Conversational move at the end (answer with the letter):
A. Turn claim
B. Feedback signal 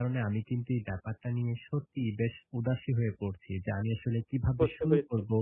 B